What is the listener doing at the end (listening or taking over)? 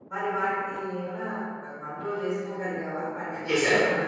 taking over